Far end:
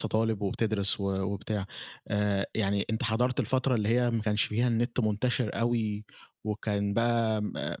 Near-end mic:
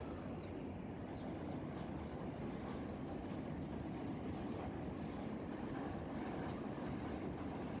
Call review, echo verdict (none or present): none